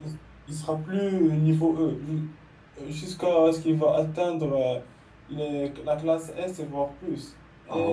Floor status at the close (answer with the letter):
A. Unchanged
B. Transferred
A